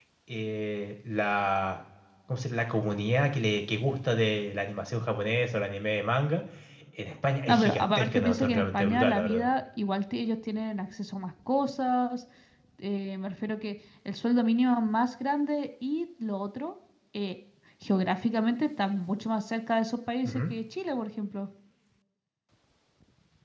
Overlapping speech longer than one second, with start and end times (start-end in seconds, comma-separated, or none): 7.5-9.5